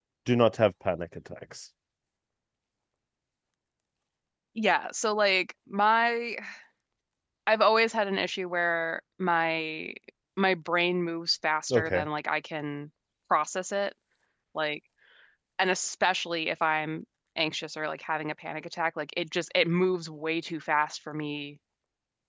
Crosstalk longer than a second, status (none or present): none